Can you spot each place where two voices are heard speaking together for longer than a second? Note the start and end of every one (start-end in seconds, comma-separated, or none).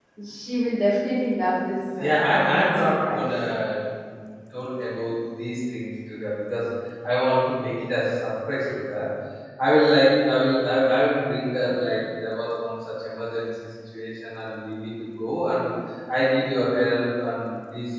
2.0-3.3